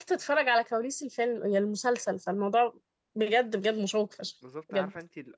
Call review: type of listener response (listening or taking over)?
taking over